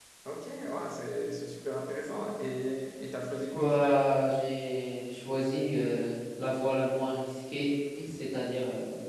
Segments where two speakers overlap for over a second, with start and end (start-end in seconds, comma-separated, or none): none